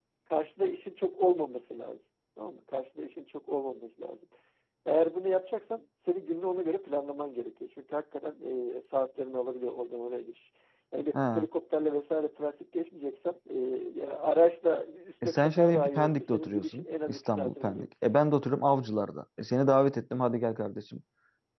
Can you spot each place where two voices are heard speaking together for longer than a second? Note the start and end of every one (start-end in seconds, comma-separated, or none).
15.2-17.9